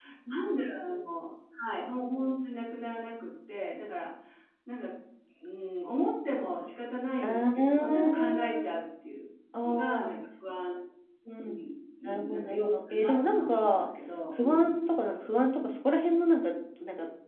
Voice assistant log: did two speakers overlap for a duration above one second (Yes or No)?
Yes